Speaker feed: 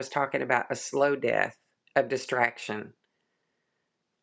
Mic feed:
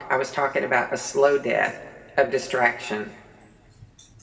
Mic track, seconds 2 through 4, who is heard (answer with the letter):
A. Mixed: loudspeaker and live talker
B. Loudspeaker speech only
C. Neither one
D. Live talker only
B